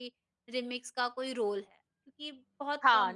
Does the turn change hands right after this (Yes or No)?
Yes